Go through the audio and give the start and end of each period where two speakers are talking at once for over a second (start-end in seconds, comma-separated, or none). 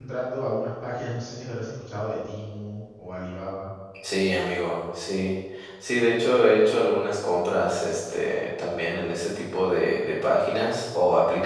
none